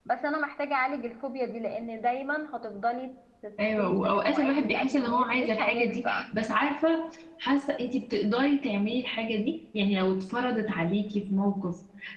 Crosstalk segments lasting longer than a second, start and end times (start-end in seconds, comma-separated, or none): 3.8-6.2